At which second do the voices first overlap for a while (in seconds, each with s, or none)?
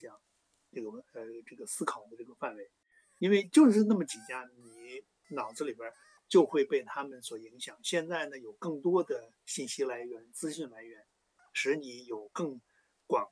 none